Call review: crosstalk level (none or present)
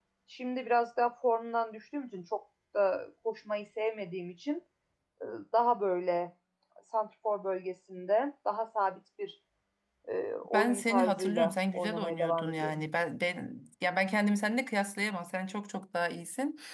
present